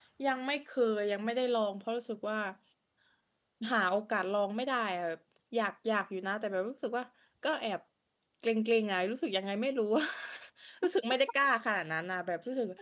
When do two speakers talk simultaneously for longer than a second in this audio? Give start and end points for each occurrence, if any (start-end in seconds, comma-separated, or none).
none